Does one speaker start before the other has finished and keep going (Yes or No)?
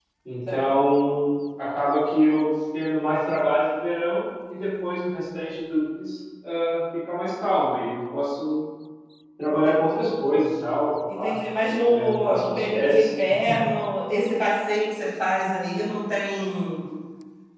Yes